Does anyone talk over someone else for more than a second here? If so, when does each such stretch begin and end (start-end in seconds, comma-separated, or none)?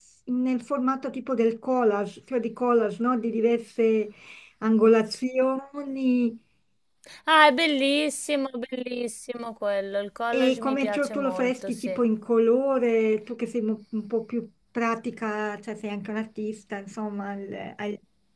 10.3-12.0